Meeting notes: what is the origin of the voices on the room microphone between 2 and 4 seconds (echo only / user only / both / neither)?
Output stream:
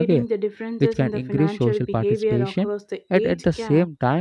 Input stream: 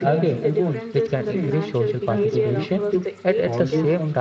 both